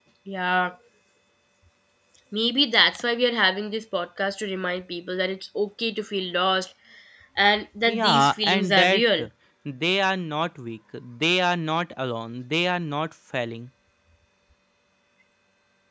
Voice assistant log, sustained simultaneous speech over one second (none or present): present